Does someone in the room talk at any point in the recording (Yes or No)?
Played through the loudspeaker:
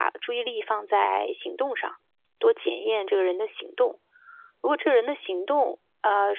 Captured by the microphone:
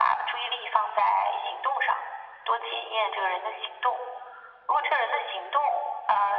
No